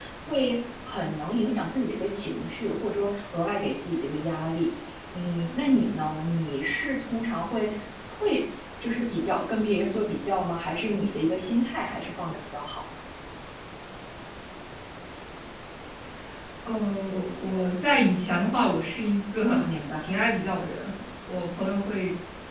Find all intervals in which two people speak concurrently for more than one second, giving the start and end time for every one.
none

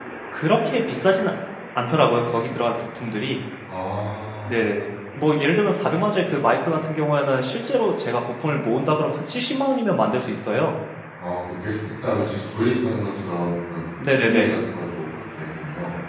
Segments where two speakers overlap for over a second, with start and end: none

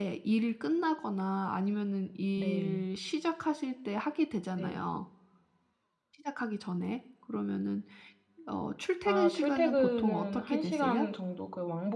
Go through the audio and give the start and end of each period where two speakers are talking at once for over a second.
9.1-11.1

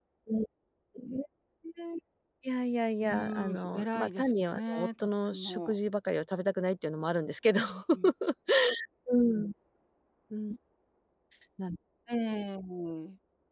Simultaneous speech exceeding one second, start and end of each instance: 3.0-5.8

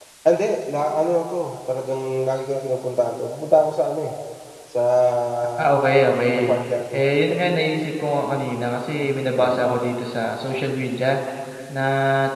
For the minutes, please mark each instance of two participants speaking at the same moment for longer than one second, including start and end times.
none

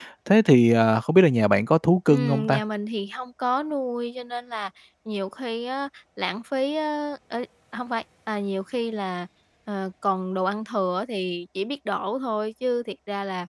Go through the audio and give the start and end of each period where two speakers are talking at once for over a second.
none

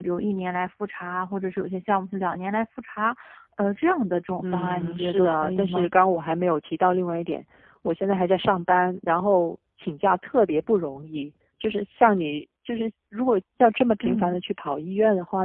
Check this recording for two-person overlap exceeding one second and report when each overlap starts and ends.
4.4-5.9

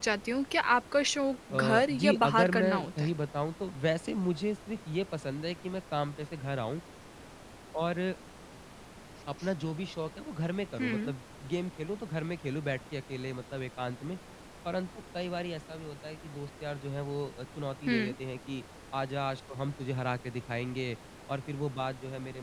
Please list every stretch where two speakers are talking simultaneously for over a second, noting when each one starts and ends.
1.5-3.1

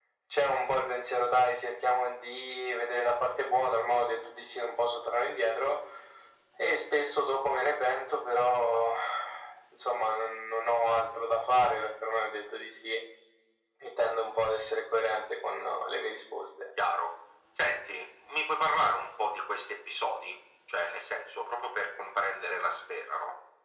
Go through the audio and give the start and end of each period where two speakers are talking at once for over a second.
none

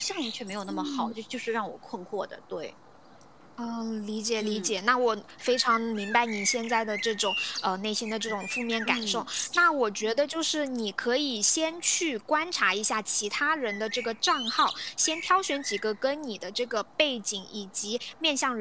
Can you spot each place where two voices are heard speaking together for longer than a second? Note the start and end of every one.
none

